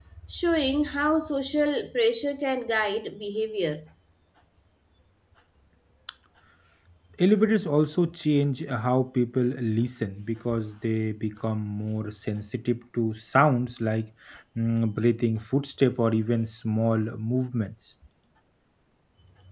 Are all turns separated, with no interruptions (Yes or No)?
Yes